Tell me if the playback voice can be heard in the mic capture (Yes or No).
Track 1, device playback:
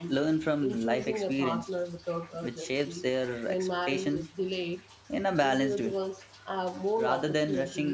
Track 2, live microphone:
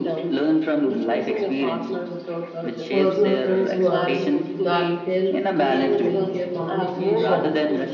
Yes